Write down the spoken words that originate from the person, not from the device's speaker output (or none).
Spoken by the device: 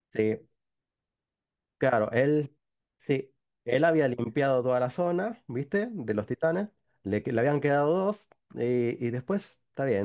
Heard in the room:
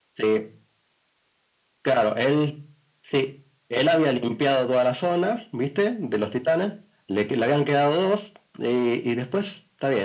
none